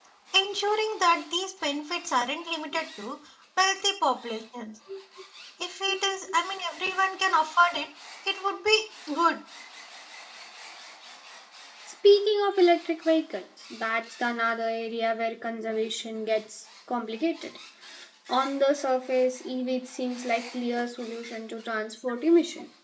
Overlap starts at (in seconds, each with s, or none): none